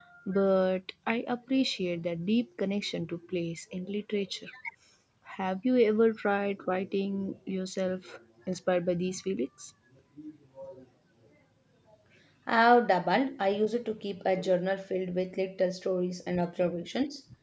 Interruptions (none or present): none